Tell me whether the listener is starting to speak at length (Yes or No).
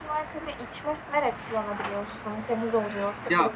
Yes